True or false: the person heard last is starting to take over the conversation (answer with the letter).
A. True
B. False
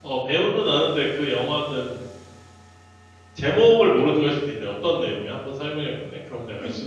A